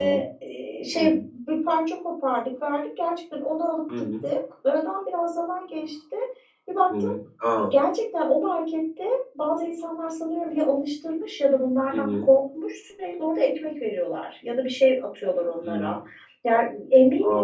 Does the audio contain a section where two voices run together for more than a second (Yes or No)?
No